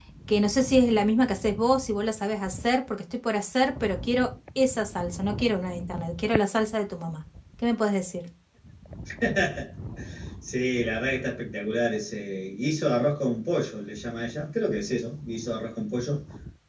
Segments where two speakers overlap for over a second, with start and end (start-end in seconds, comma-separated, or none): none